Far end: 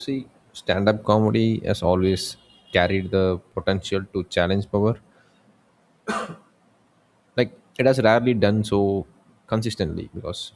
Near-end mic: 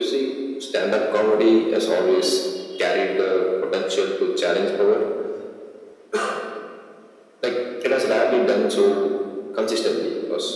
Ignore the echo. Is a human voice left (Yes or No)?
No